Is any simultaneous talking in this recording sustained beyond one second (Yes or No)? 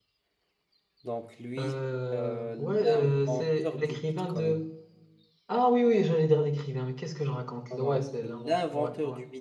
Yes